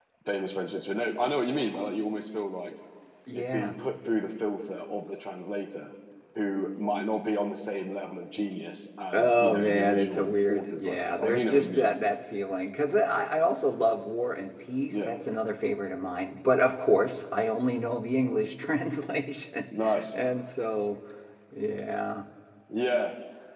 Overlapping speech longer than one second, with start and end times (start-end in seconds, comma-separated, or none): 9.1-11.9